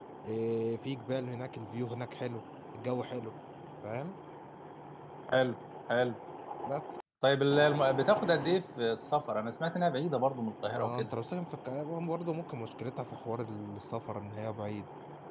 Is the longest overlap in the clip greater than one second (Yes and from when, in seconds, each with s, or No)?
No